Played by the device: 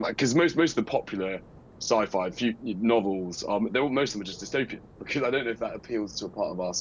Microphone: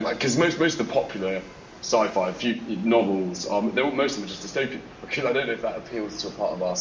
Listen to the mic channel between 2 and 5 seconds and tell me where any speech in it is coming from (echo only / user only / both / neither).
echo only